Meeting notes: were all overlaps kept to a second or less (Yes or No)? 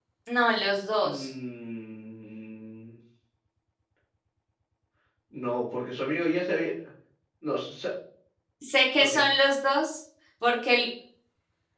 Yes